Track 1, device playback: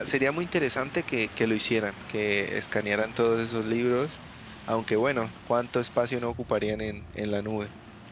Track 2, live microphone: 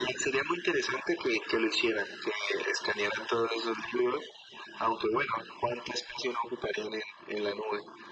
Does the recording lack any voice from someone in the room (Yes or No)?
Yes